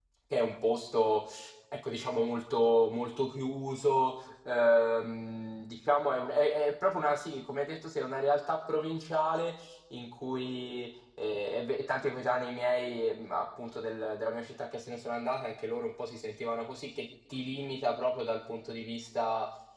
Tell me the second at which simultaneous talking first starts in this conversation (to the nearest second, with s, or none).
none